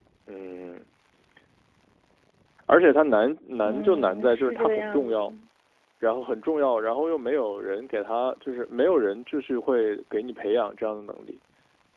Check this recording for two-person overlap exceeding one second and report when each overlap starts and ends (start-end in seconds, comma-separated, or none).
3.6-5.3